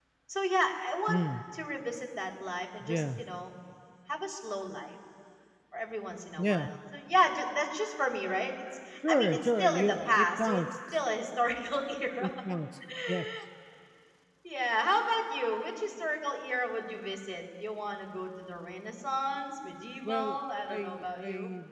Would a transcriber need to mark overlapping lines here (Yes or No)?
Yes